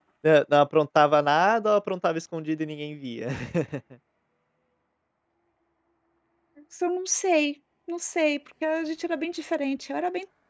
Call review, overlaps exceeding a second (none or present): none